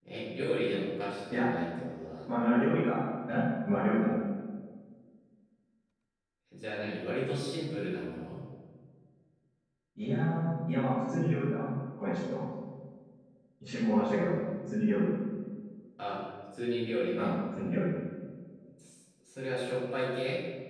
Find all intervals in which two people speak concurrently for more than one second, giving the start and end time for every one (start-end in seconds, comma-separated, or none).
none